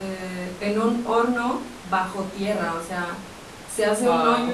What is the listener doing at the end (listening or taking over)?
listening